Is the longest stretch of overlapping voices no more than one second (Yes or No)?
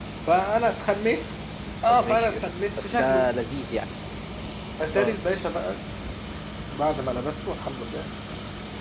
No